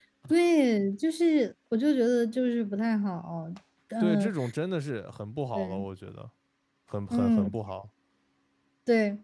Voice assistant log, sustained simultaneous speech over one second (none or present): none